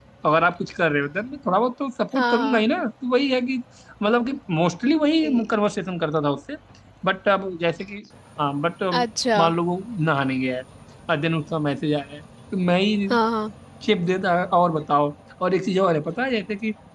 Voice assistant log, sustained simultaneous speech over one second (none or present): none